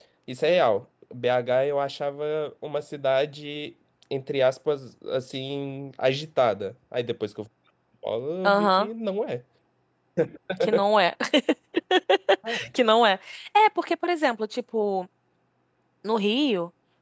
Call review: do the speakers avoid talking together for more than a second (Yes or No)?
Yes